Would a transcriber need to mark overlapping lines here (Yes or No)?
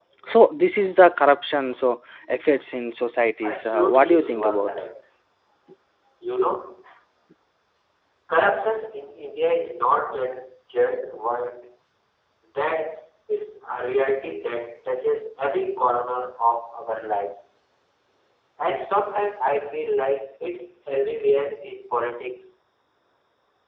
Yes